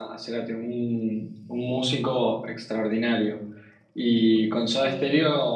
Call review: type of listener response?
listening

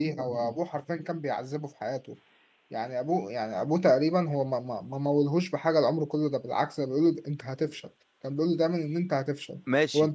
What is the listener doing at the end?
taking over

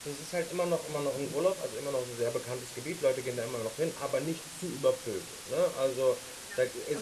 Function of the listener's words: taking over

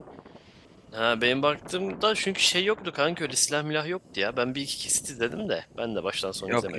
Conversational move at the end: taking over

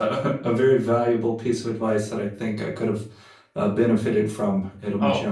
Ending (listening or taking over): taking over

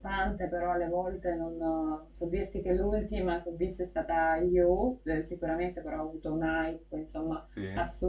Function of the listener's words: listening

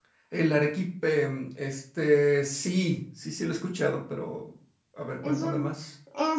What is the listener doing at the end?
taking over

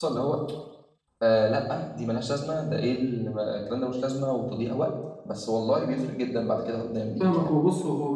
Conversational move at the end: taking over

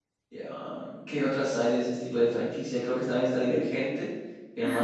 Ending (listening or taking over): listening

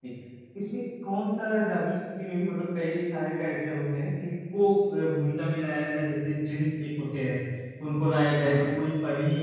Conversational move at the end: listening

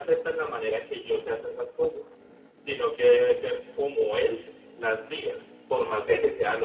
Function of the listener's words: listening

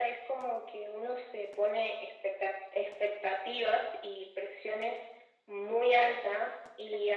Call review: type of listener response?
listening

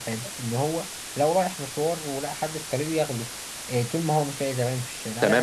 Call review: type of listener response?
taking over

